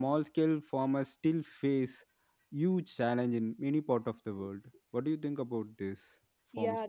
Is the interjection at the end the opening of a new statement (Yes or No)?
Yes